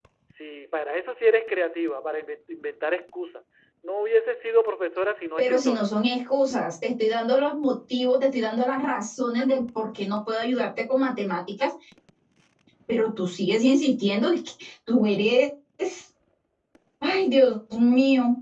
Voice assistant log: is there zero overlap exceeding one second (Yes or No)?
Yes